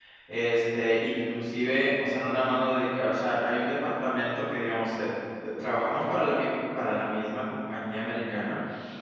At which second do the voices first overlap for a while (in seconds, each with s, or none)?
none